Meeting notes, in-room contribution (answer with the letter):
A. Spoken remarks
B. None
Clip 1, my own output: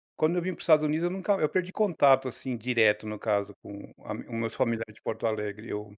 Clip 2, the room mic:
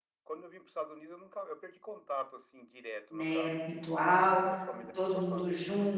A